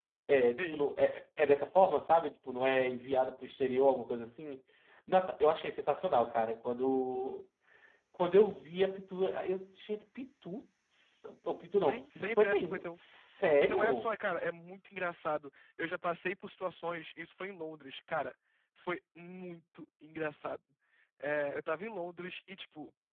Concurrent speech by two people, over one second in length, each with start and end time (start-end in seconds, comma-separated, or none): 11.8-13.0